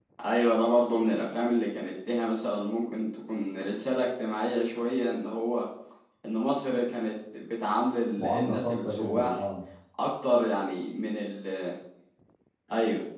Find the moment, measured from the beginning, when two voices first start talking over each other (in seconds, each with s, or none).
8.2 s